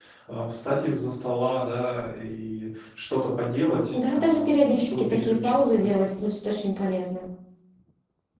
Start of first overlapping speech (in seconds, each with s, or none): 3.9 s